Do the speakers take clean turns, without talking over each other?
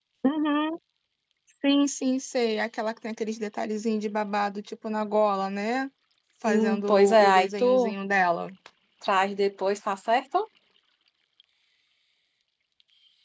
No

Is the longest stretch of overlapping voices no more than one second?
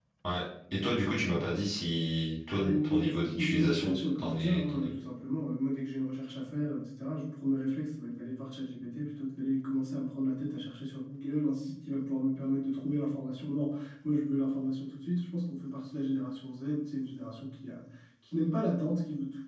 No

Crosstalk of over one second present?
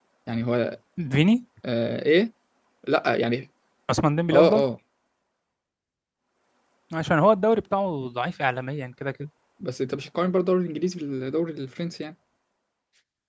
No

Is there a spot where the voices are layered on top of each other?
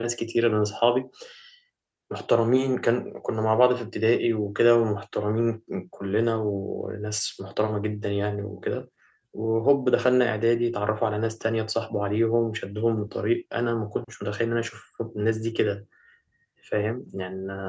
No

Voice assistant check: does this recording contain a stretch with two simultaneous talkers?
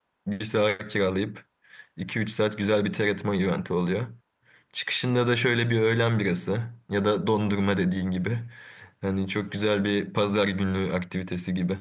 No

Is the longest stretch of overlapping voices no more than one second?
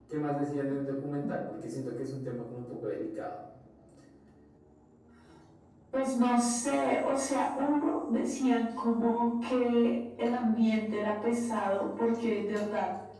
Yes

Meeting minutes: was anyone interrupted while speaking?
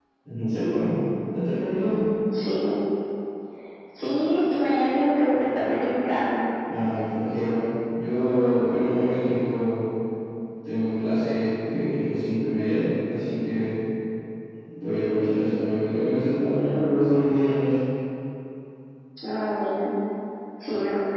No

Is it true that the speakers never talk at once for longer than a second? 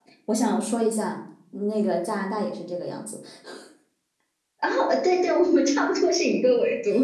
Yes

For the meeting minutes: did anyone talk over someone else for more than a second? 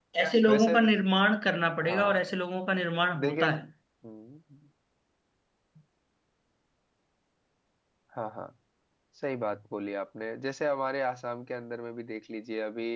No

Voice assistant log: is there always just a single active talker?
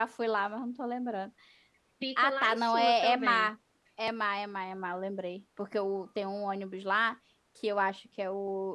No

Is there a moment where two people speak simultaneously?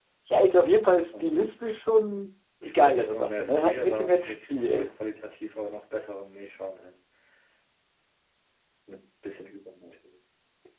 Yes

